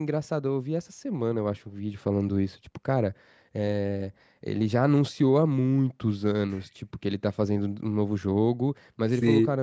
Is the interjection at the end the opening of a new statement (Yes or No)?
No